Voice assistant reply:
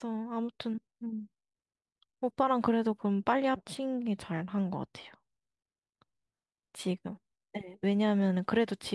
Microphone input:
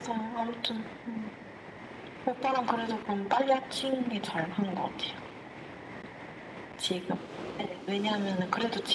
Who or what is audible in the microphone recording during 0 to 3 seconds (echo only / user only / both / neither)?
echo only